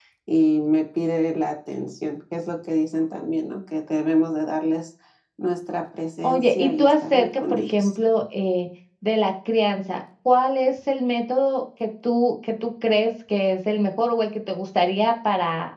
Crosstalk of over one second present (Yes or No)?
Yes